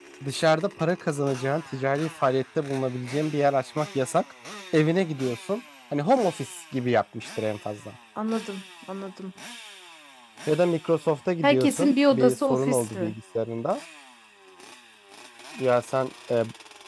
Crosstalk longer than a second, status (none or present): present